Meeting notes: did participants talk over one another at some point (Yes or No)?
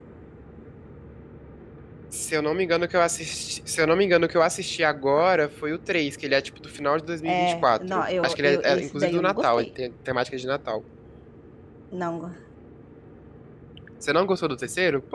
Yes